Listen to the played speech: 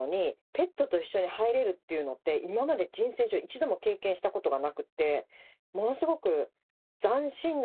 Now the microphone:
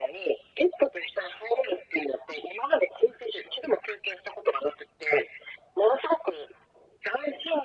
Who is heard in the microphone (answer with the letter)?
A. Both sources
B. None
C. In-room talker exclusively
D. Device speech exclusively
D